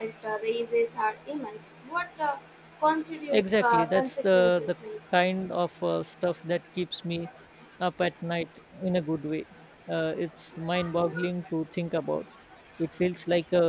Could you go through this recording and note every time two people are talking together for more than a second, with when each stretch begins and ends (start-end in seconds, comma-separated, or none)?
3.3-4.7